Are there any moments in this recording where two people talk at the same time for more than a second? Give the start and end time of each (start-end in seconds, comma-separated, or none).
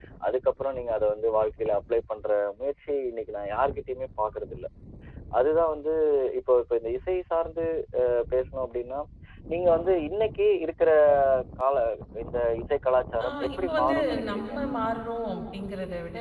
13.2-14.5